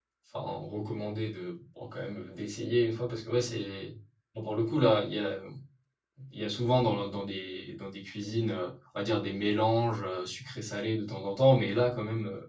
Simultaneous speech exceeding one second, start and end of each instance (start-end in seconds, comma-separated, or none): none